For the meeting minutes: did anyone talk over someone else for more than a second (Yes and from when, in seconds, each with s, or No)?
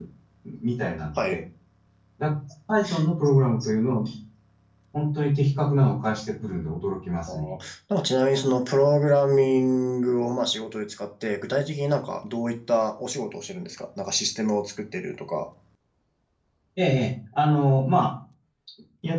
No